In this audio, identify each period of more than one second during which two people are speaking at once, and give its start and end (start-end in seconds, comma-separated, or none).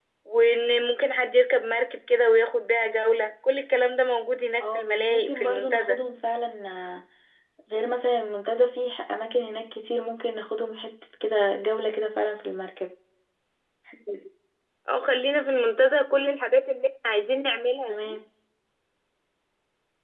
4.6-6.0